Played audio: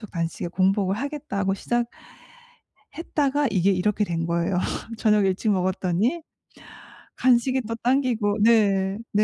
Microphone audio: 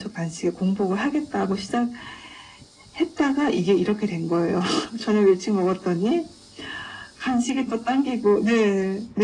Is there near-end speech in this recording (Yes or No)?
No